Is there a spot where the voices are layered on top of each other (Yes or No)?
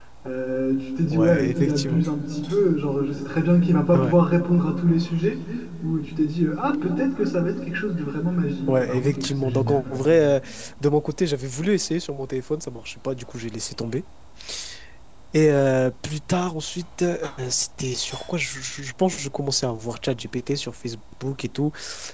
Yes